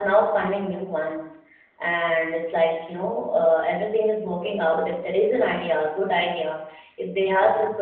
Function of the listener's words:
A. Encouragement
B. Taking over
A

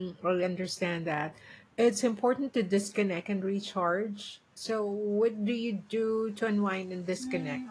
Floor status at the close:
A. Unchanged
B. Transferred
B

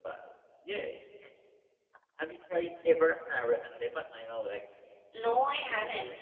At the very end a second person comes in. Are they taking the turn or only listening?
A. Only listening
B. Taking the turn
B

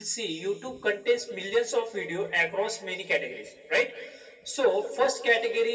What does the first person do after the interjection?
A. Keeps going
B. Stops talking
A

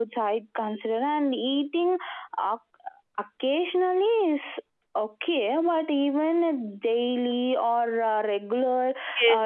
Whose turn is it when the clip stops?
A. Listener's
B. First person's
A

